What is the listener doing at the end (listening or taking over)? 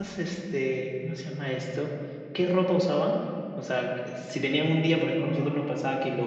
listening